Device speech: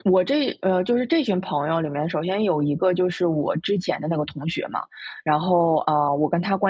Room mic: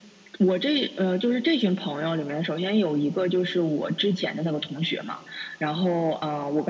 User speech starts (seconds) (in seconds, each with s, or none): none